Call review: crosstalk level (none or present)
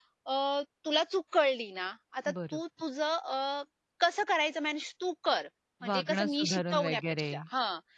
present